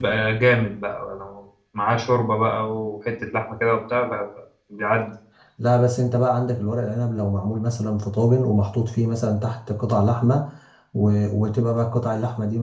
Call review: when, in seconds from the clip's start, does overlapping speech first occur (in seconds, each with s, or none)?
none